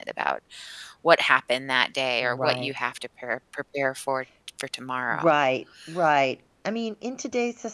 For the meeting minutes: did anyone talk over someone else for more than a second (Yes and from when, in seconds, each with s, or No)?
No